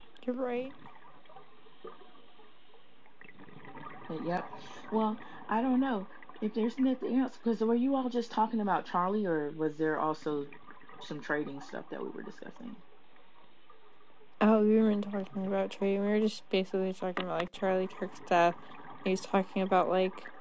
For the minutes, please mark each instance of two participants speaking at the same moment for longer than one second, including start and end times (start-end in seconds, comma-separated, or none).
none